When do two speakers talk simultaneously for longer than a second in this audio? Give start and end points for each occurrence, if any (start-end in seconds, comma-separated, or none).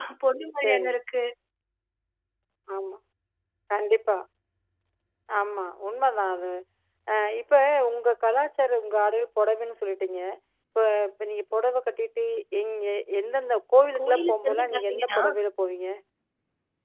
14.0-15.2